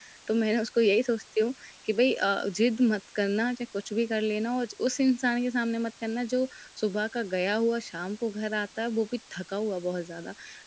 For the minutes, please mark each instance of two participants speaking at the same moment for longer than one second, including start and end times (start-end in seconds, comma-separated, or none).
none